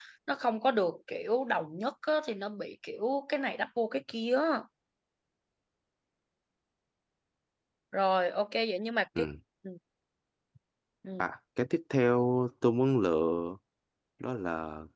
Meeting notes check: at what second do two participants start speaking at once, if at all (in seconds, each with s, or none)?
none